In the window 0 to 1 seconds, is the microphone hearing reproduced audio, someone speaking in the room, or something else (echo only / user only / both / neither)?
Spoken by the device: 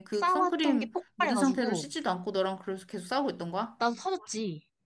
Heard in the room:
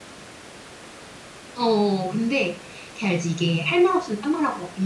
neither